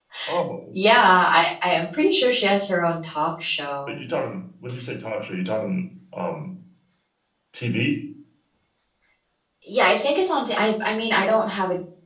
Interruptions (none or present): none